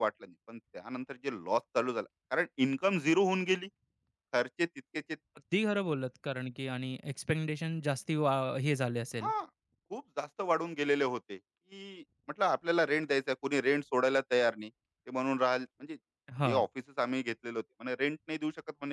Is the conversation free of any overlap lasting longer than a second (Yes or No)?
Yes